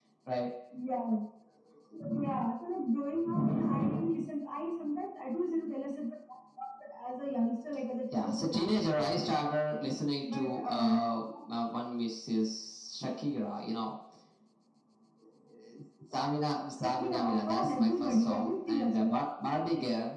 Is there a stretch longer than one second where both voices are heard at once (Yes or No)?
Yes